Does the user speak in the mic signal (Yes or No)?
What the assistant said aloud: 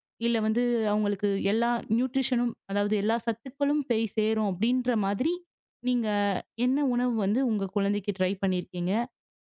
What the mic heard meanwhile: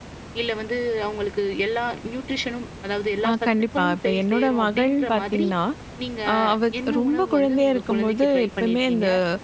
Yes